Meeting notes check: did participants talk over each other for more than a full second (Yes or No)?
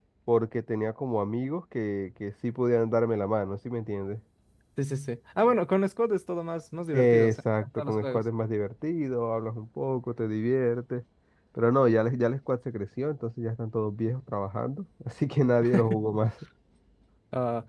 Yes